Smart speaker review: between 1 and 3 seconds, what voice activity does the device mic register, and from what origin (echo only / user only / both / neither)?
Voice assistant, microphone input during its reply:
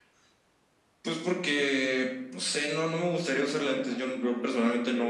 echo only